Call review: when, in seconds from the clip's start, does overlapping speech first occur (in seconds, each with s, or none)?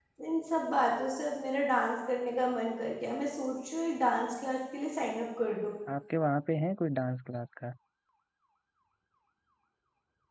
none